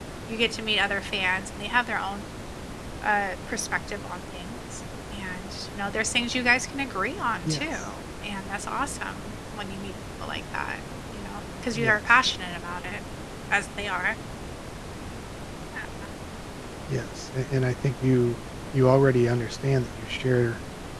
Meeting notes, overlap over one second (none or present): none